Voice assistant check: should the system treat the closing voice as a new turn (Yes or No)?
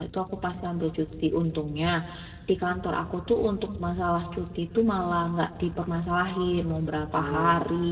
No